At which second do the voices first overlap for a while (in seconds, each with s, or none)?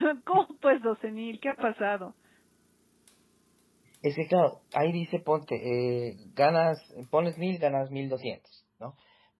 none